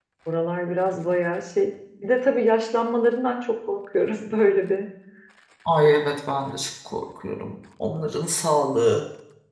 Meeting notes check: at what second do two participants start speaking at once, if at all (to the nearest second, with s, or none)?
none